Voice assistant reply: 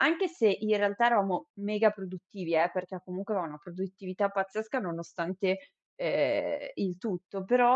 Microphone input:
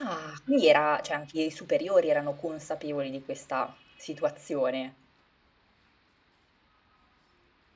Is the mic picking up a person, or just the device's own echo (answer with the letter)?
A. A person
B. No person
A